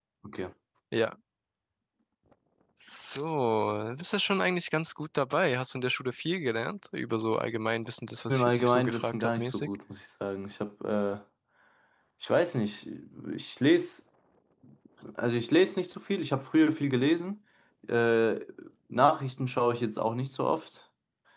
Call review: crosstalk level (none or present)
present